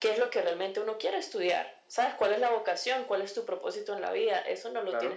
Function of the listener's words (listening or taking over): listening